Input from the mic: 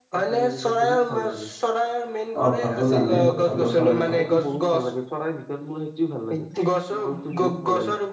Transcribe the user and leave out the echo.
অ ভাতো জানাই ভাটৌ চৰাই কথা

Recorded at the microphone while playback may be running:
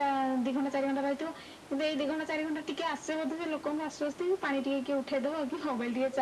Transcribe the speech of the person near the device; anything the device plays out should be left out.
none

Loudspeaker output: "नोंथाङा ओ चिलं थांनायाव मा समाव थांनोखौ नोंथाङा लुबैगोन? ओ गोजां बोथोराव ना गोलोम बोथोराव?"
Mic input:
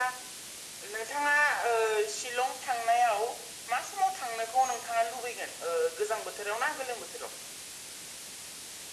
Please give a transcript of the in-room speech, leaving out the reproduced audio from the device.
none

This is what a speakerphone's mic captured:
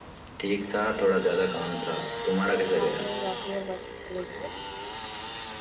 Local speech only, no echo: باتیں ہو جاتی ہے ر

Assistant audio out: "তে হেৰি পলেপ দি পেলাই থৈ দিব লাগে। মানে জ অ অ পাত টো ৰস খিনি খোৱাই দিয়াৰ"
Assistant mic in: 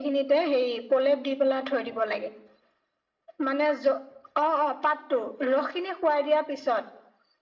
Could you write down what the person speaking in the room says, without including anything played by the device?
none

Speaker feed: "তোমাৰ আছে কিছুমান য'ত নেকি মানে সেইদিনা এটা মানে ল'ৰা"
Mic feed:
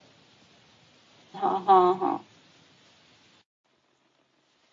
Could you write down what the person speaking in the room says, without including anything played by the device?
অ হ হ,

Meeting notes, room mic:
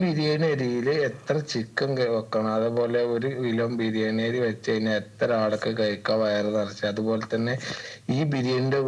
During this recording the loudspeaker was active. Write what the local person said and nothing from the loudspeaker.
none

